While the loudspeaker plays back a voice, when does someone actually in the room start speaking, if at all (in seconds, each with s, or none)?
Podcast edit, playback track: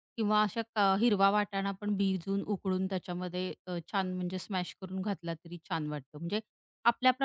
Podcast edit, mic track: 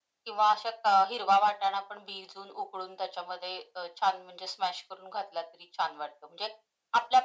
none